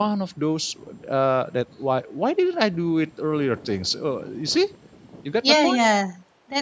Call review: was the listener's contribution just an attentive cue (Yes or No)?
No